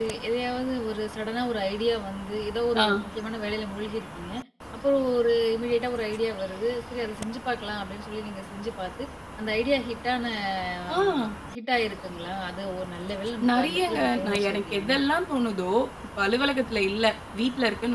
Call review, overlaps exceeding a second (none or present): present